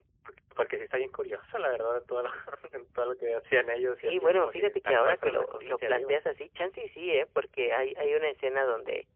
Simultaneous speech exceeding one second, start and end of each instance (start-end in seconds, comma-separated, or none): 4.0-6.2